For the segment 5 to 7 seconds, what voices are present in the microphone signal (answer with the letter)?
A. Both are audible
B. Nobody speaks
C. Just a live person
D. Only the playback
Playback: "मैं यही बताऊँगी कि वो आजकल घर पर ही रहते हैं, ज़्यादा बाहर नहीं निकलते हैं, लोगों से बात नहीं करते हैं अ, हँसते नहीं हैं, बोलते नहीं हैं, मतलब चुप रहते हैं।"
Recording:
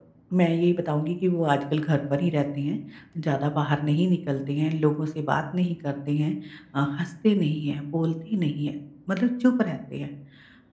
D